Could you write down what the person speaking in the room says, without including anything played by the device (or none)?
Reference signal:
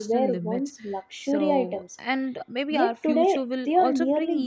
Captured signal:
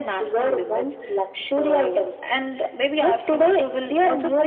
none